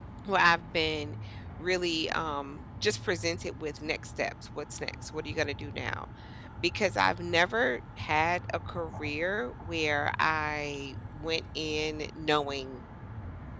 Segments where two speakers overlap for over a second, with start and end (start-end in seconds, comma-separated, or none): none